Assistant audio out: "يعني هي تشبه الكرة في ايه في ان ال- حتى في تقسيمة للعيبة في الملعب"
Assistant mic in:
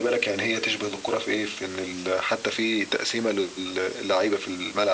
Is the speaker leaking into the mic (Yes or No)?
Yes